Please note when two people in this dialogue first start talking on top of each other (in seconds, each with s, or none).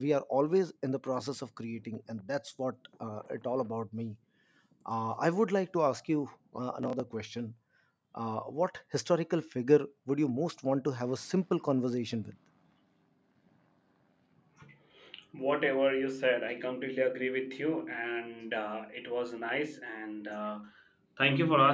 none